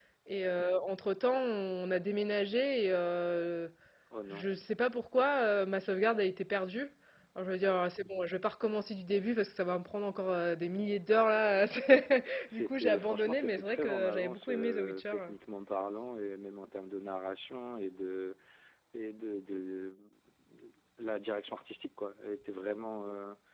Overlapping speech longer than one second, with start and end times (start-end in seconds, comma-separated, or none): 12.5-15.3